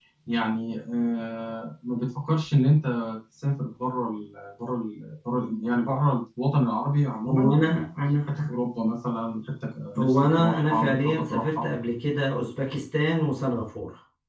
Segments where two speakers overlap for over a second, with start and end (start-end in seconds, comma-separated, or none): 10.0-11.7